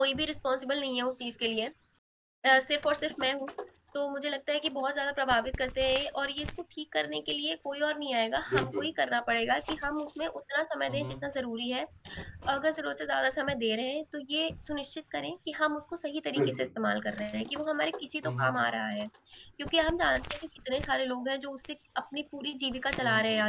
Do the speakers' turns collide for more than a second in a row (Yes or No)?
No